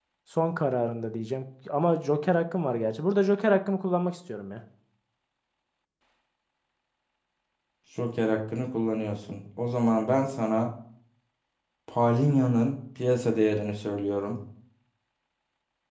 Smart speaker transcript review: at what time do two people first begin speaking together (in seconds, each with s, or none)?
none